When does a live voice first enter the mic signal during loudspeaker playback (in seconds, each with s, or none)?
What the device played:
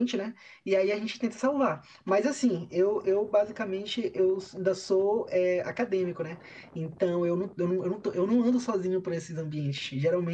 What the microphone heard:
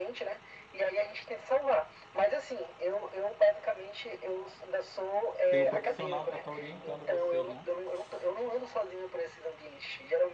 5.5 s